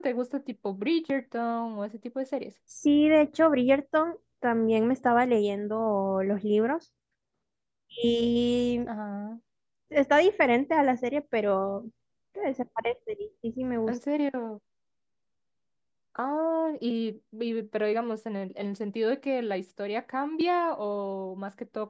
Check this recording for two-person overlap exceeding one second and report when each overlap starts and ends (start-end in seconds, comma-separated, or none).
none